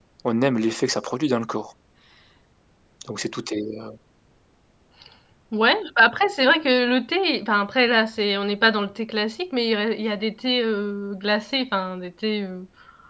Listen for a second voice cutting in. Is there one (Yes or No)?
No